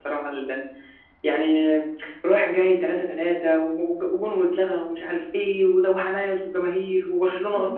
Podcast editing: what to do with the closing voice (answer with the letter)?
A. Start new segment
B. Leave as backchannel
A